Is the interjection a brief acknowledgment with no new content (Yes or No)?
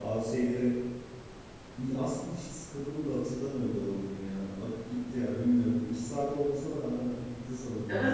No